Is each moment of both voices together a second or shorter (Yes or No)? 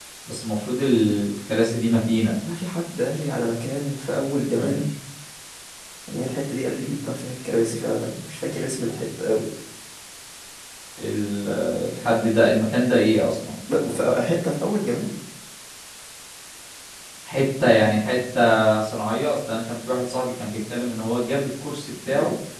Yes